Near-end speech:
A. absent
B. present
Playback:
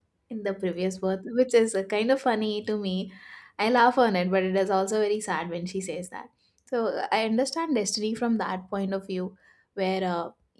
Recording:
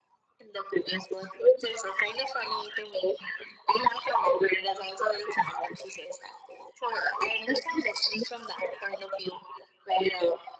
A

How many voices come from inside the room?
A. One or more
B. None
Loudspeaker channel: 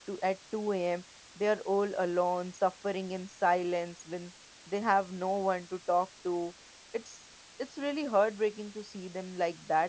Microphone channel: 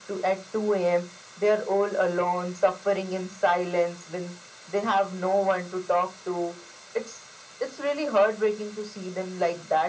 B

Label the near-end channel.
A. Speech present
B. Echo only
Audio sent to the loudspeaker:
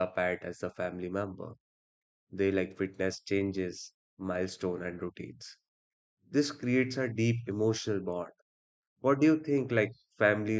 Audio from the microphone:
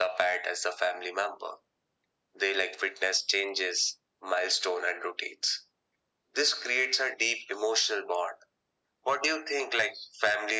B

